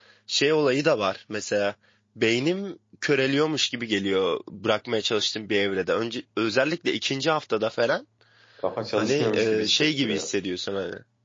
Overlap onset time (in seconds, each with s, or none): 9.0 s